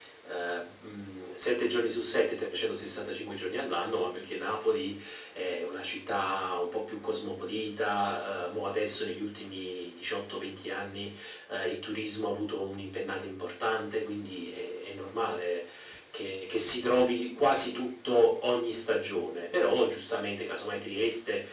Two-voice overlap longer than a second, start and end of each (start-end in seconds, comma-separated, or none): none